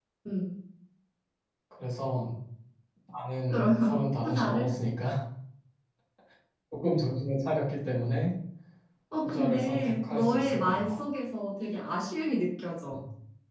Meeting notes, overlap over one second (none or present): present